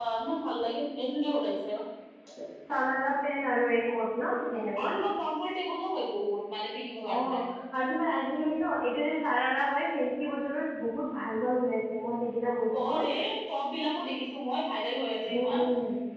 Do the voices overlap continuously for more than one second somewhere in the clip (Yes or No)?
No